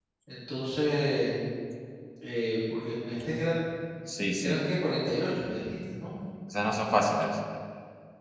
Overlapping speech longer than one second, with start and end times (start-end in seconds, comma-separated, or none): none